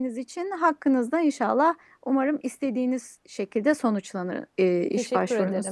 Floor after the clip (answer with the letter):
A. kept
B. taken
B